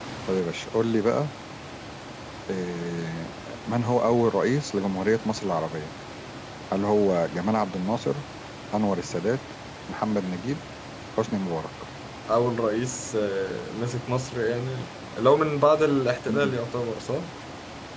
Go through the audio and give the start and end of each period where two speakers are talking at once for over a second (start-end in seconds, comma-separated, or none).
none